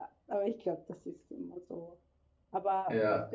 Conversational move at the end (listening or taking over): listening